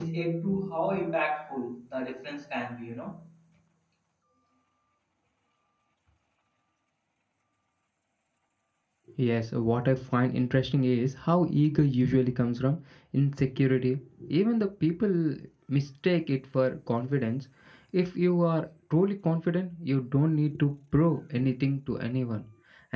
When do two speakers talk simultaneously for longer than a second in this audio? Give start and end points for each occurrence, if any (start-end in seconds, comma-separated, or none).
none